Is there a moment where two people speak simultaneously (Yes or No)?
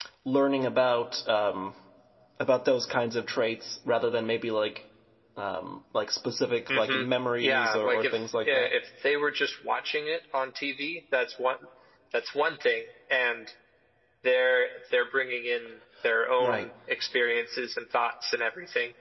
Yes